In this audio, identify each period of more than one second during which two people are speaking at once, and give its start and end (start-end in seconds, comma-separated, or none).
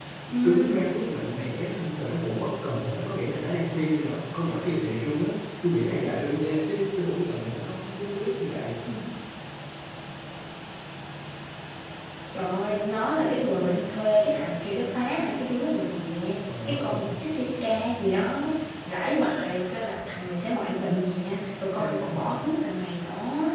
none